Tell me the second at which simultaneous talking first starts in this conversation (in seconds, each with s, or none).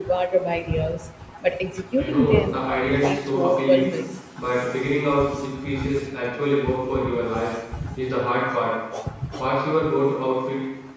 2.0 s